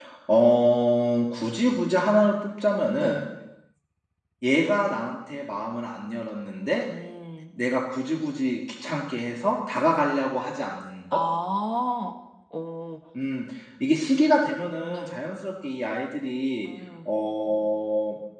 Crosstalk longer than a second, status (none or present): none